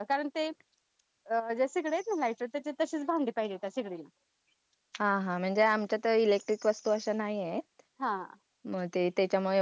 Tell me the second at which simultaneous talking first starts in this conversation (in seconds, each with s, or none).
none